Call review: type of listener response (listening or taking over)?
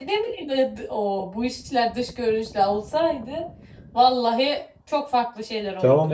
taking over